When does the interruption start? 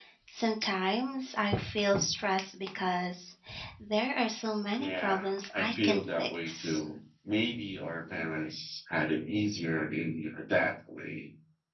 5 s

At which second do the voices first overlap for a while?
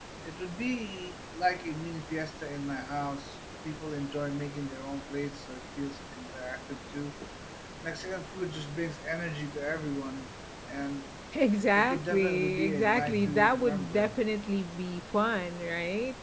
12 s

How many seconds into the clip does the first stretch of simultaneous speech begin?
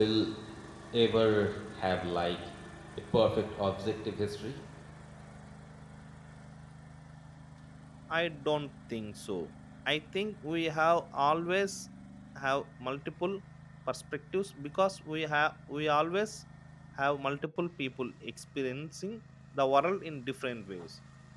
none

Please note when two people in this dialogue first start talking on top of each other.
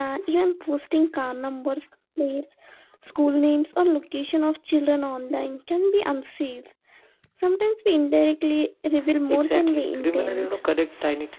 9 s

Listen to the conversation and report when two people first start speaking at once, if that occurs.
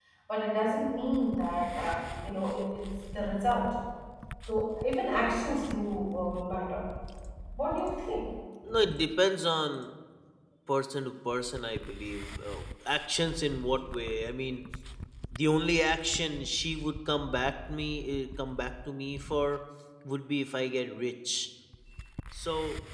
none

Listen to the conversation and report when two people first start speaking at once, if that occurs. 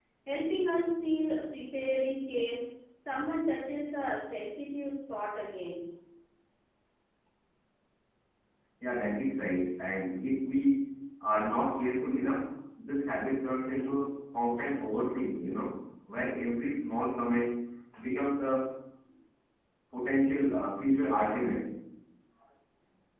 none

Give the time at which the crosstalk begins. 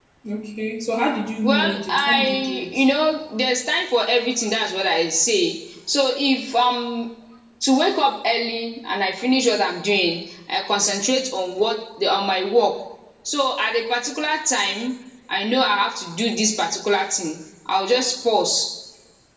1 s

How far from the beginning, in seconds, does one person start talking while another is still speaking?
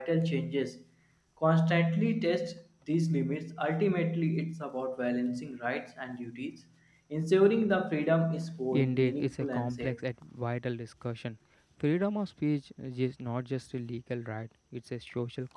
9 s

